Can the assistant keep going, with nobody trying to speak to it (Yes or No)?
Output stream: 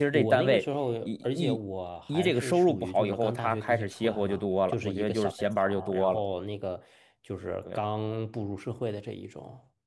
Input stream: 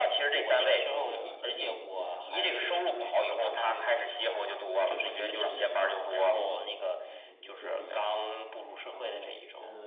No